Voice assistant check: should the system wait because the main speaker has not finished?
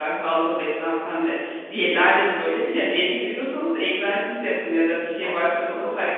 Yes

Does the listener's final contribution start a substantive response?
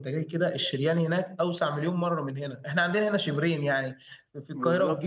No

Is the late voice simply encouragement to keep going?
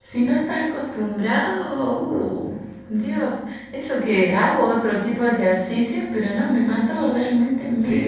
No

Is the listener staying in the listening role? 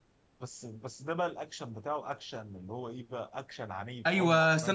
No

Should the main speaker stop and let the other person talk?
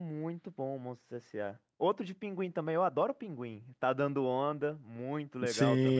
Yes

